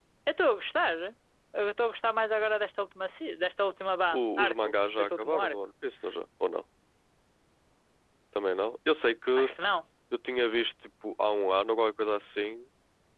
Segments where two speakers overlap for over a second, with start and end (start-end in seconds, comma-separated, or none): 4.2-5.6